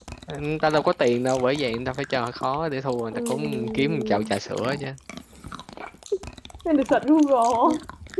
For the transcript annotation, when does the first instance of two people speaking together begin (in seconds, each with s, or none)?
3.1 s